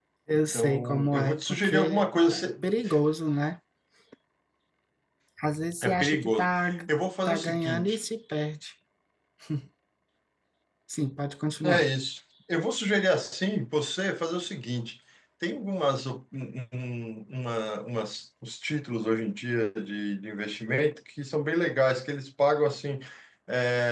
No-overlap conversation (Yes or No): No